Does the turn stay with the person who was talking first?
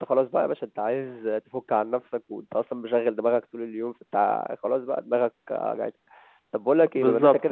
Yes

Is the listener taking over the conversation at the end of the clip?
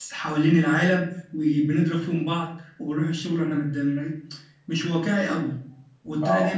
No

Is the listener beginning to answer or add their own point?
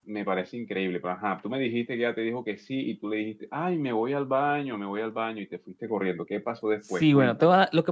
Yes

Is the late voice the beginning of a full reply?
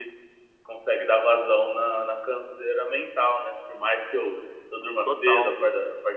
No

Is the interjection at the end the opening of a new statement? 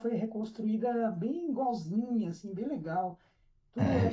Yes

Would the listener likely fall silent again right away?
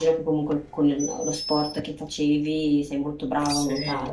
No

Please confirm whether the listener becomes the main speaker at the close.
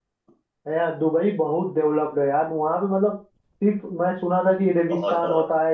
No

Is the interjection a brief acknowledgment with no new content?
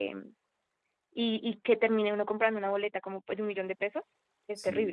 No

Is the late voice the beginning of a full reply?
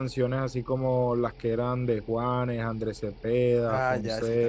Yes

